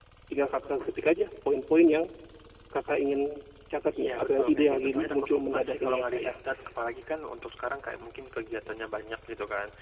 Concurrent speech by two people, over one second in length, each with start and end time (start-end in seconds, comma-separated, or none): 3.9-6.3